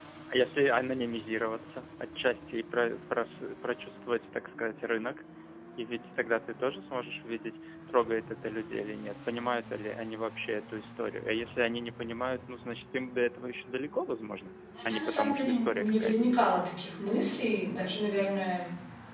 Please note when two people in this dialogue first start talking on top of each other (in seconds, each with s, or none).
14.8 s